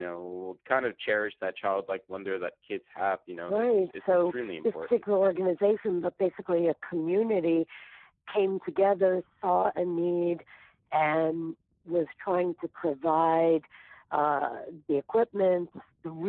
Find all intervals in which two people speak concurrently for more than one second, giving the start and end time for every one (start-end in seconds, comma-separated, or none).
3.5-5.0